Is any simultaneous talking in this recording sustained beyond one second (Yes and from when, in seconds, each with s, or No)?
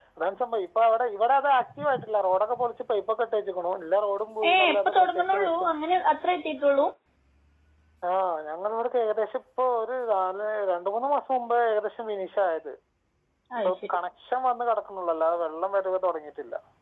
Yes, from 4.5 s